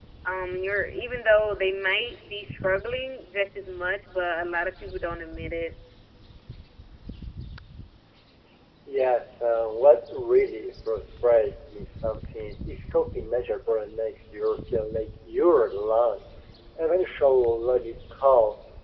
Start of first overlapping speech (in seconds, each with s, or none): none